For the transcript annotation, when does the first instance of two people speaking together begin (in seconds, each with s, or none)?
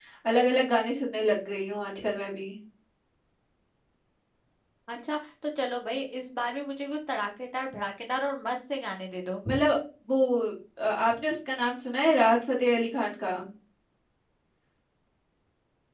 none